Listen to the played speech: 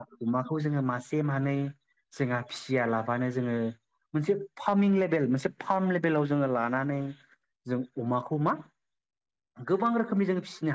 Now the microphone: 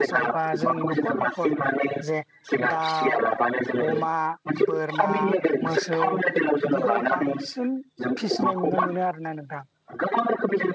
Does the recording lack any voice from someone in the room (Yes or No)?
No